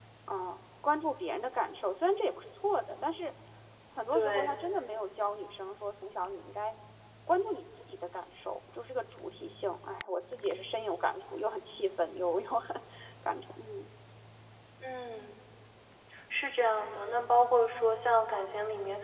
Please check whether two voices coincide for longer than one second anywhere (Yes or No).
No